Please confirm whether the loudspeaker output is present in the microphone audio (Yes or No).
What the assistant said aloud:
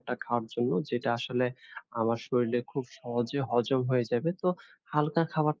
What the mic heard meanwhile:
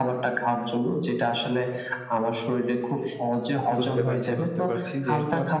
Yes